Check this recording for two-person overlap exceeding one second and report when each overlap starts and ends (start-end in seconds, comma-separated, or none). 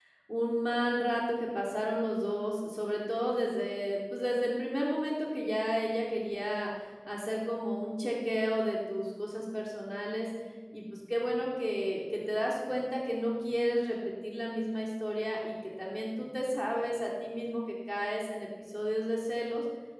none